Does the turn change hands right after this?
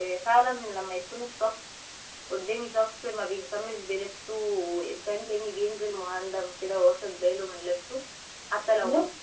No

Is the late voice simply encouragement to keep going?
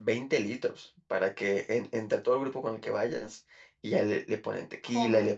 Yes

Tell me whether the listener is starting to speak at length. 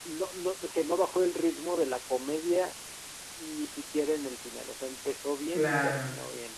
No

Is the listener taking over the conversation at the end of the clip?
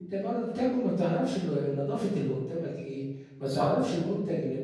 No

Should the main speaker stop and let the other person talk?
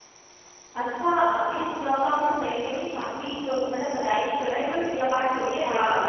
No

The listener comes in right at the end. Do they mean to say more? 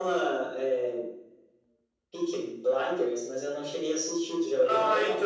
Yes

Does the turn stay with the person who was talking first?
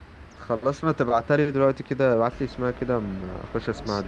No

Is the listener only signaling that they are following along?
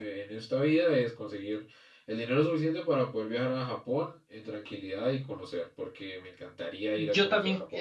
No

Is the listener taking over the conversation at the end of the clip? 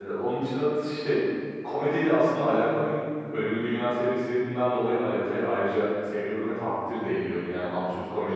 No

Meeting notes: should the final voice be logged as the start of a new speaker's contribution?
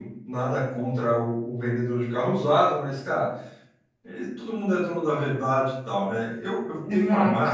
Yes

